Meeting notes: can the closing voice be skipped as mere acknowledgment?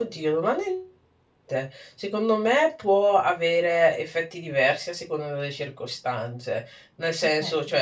Yes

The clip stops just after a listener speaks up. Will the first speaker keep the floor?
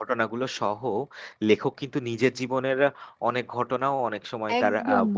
No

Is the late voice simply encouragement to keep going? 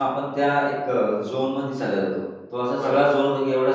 Yes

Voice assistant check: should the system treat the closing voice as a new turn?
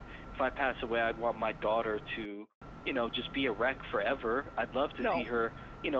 No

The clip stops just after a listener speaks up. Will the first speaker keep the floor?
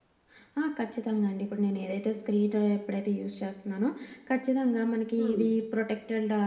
Yes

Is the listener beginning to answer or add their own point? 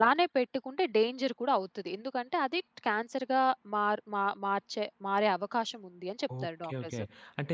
Yes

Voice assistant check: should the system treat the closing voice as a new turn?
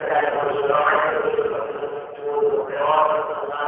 No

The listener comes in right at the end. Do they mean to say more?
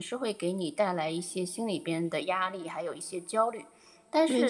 No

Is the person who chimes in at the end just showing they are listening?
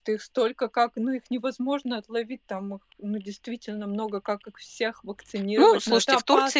No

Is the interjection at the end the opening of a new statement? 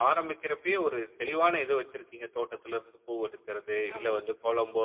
No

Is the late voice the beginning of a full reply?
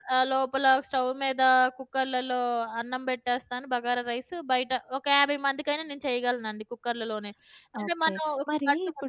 Yes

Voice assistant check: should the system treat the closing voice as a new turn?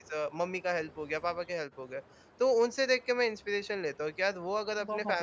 No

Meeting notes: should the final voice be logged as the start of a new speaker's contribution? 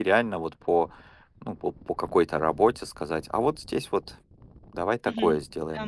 Yes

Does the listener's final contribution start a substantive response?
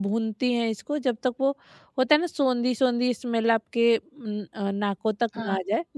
Yes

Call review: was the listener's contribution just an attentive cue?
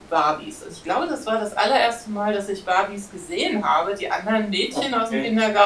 Yes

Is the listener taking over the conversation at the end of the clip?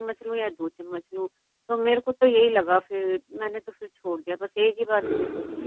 Yes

